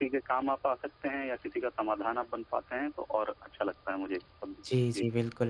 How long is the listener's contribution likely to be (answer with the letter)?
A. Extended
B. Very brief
A